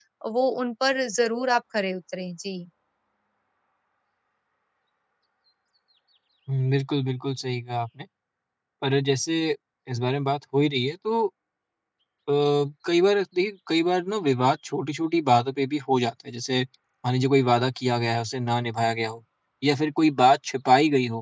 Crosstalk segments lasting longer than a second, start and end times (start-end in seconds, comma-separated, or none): none